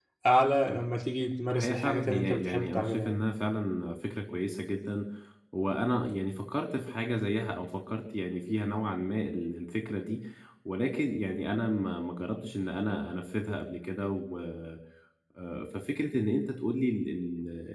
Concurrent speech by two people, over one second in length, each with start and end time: 1.5-3.2

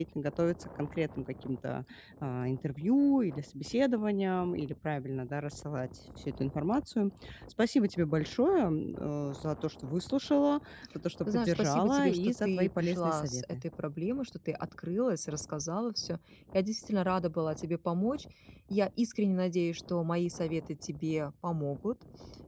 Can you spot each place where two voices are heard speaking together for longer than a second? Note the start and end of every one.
11.3-13.6

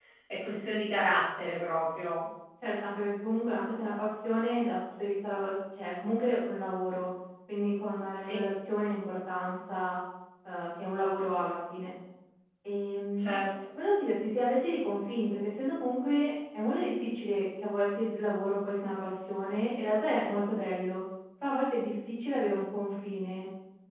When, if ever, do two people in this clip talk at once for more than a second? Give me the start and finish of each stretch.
none

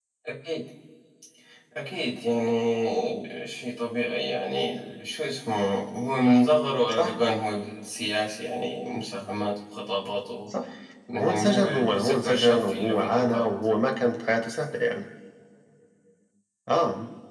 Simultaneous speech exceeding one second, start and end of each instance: 11.2-13.5

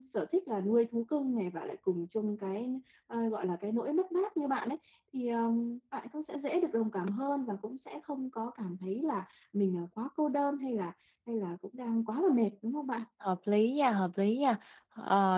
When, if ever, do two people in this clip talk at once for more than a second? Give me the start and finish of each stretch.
none

